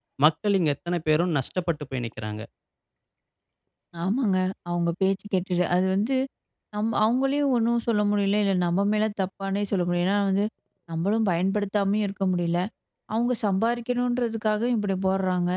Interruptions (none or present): none